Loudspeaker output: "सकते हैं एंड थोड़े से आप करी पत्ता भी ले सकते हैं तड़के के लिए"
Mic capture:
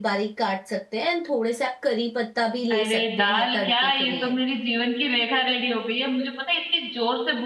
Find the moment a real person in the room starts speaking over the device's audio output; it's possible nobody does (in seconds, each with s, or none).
2.7 s